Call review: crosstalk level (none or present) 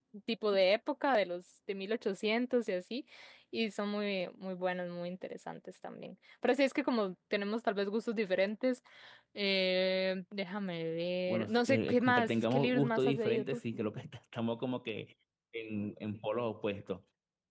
present